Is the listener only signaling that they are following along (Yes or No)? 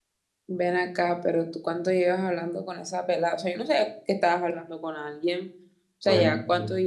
Yes